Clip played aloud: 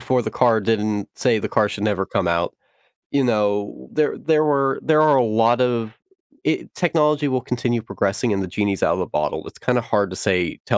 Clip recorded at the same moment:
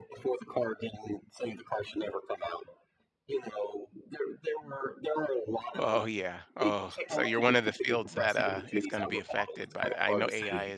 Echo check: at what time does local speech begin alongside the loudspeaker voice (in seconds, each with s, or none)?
5.8 s